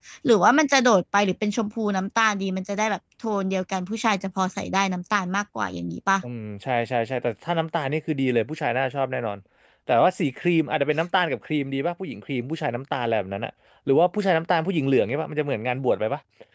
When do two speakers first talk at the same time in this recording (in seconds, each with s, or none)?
none